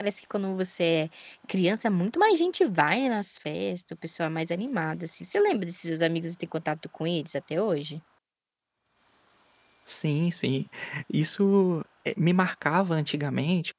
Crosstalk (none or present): none